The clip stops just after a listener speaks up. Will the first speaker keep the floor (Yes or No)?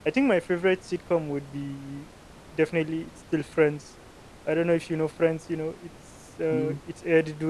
Yes